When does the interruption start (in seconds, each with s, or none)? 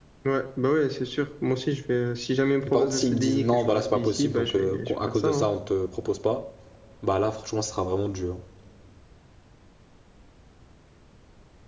2.7 s